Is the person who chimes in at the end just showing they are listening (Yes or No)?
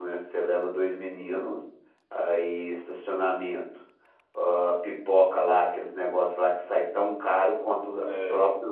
Yes